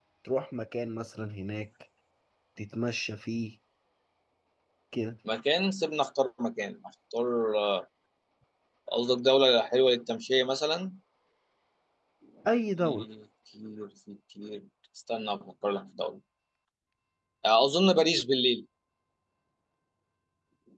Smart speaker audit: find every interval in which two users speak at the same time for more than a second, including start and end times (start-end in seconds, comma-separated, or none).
none